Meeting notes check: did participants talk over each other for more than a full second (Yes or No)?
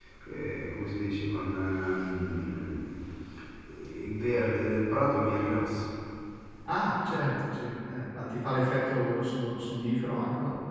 No